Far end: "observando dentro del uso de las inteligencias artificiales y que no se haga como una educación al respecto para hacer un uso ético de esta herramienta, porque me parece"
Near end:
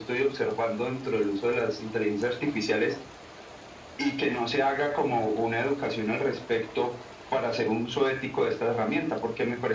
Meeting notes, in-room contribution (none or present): none